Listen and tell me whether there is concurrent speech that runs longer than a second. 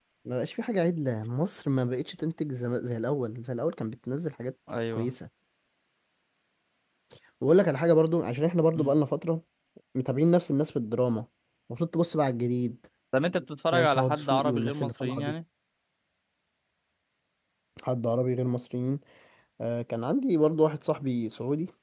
Yes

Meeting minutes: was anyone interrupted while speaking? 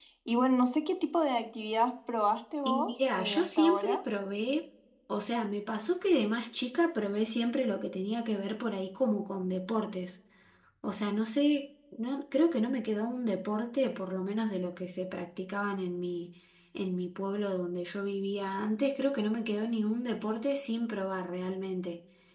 Yes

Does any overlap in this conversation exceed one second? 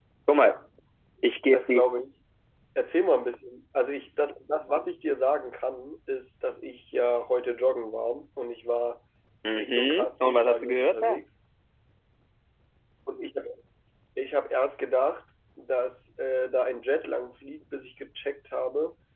Yes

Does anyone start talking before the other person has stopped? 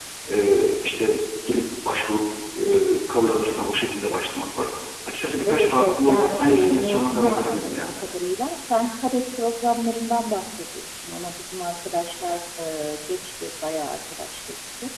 Yes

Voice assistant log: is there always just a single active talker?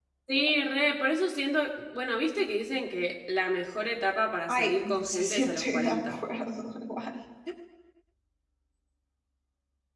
No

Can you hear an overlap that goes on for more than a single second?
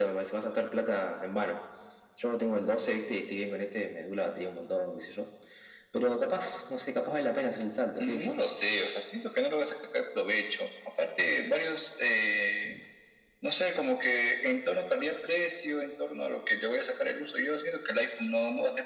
No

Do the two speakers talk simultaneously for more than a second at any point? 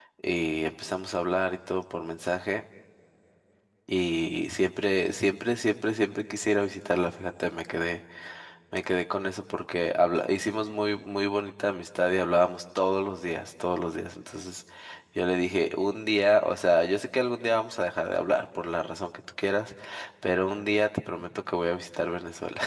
No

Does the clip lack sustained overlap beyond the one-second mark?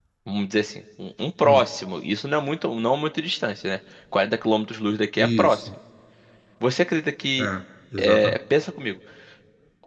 Yes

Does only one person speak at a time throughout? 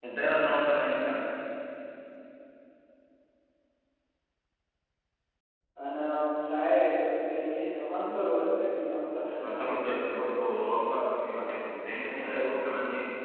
No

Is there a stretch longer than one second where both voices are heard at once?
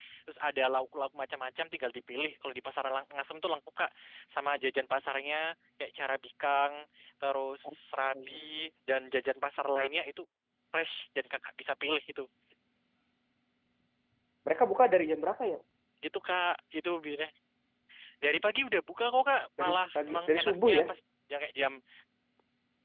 Yes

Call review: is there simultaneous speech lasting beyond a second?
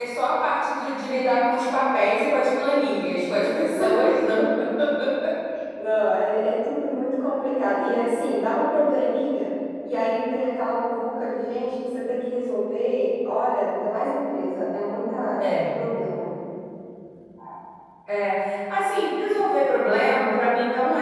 No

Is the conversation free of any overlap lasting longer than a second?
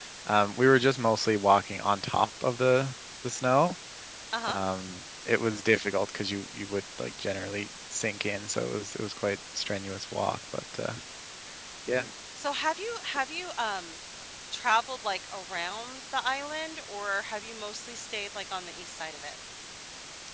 Yes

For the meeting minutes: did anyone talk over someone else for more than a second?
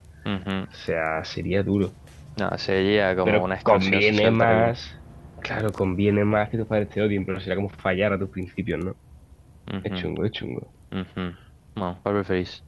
Yes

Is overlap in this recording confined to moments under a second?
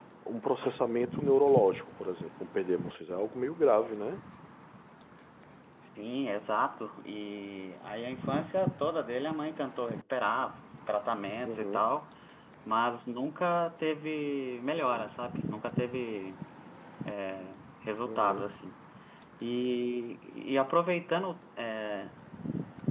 Yes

